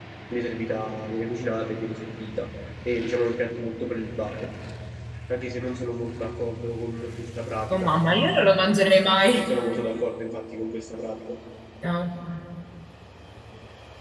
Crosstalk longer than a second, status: none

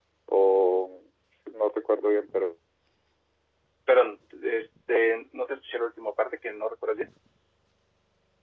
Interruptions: none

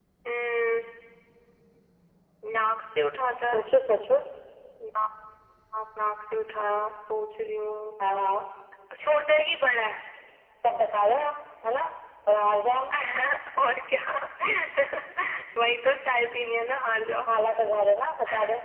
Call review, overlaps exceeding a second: none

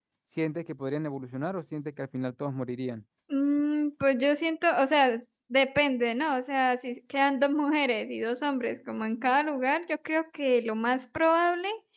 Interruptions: none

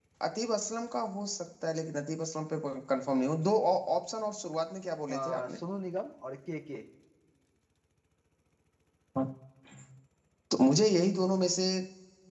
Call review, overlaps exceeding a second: none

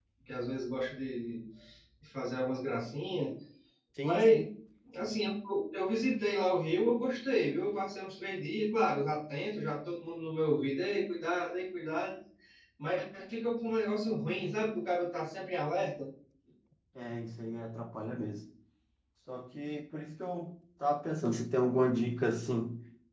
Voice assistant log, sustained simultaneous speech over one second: none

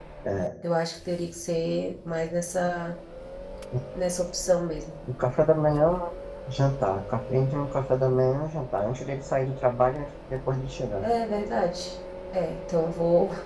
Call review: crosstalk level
none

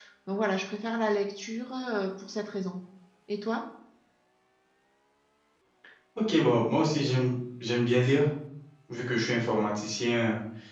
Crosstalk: none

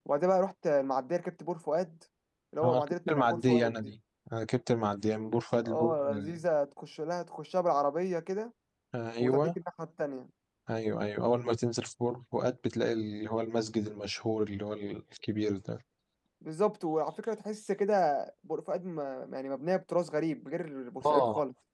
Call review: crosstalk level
present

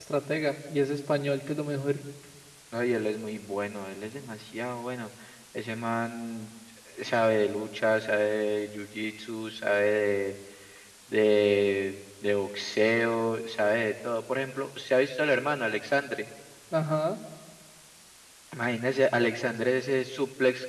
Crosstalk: none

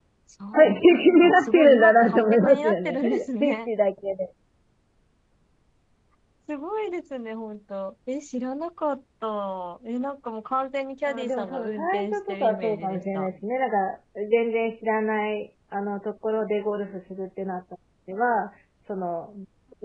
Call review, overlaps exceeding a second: present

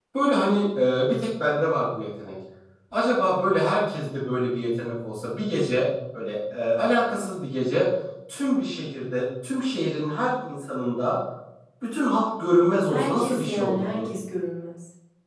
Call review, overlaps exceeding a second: present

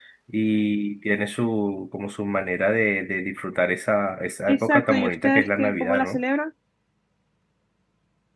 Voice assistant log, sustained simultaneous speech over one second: present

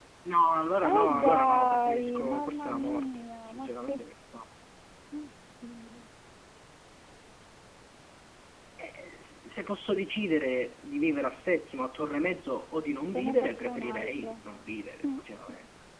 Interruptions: present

